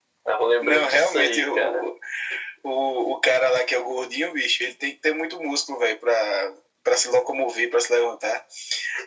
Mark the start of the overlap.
0.6 s

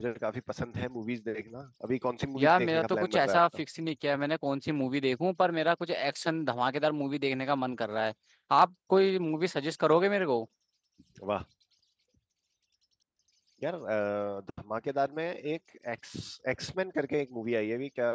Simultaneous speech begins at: 2.4 s

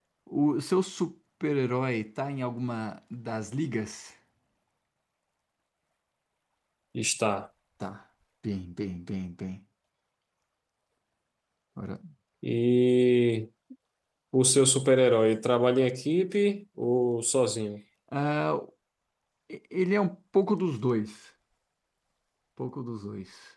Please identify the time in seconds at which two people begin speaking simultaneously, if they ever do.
none

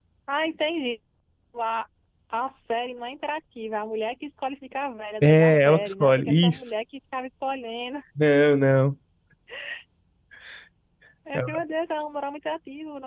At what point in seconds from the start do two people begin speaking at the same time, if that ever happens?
5.2 s

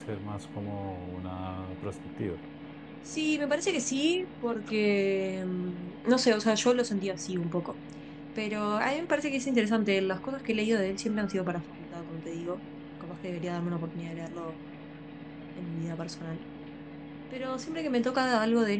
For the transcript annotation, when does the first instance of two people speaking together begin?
none

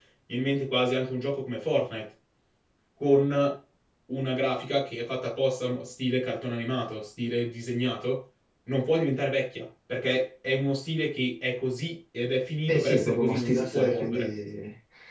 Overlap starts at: 12.7 s

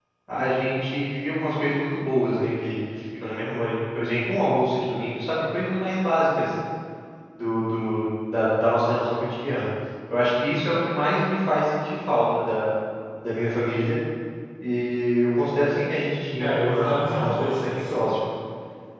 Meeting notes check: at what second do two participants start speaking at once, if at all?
16.4 s

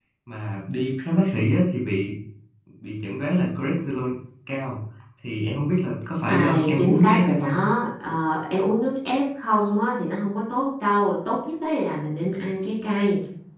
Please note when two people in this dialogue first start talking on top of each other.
6.3 s

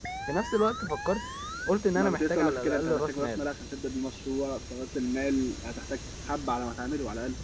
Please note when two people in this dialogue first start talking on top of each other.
1.9 s

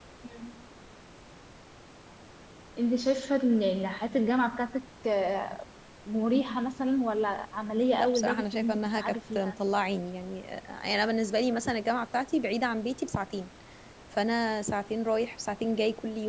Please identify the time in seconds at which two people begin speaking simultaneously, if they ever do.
7.9 s

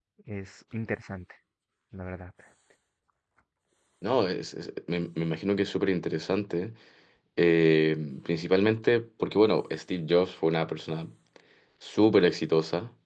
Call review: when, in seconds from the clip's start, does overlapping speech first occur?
none

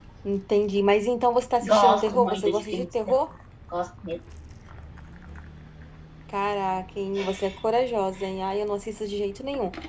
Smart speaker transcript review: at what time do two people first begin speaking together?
1.6 s

